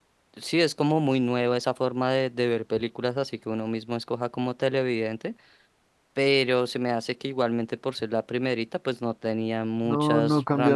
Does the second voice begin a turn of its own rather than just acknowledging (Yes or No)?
Yes